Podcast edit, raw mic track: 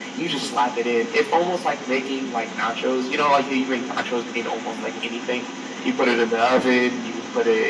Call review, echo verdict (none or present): present